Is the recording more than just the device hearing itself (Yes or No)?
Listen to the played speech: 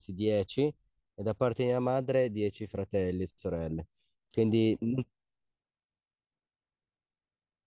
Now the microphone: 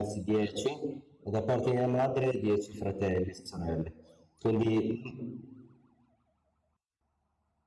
No